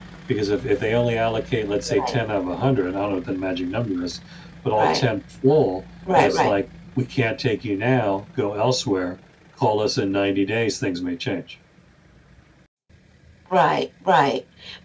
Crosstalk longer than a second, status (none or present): none